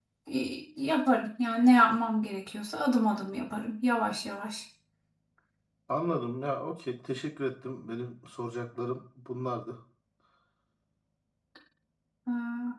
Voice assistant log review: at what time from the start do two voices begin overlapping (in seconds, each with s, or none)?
none